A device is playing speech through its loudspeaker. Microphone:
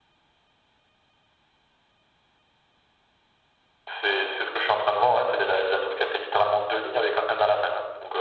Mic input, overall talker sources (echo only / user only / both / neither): echo only